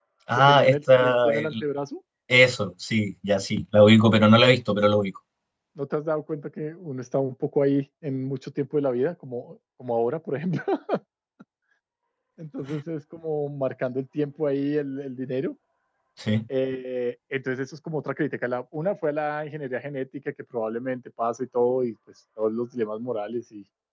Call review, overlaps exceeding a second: present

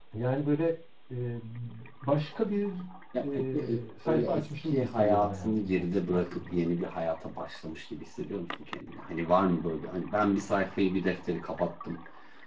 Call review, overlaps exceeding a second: present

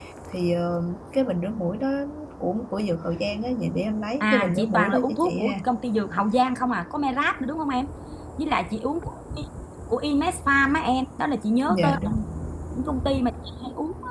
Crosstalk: present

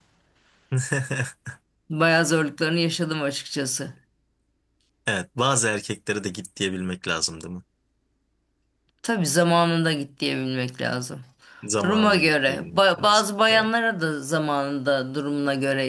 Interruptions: present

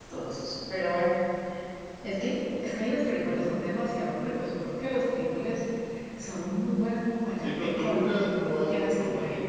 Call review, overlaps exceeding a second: present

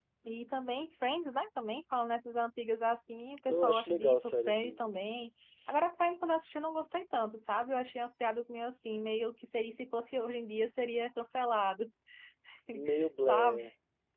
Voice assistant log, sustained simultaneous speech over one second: present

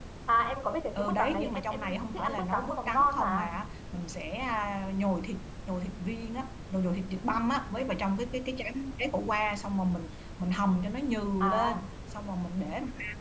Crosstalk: present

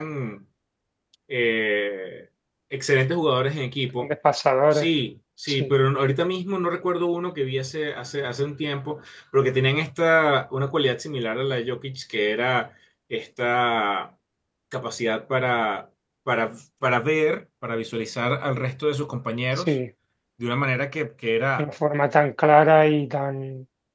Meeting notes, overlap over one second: none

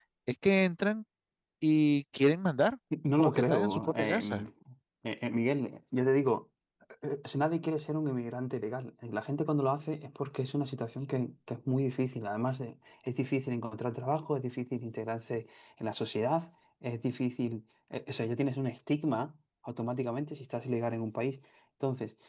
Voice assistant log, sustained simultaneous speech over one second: present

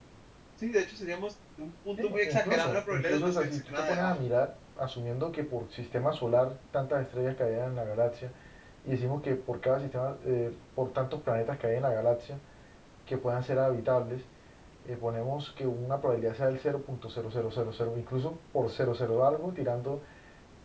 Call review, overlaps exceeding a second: present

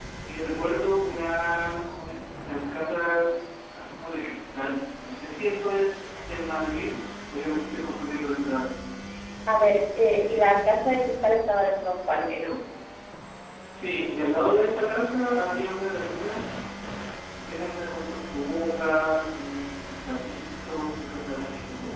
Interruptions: none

